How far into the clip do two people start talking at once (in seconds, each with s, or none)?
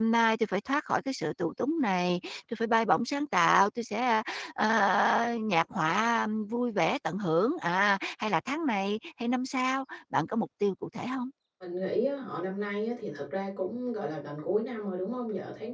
none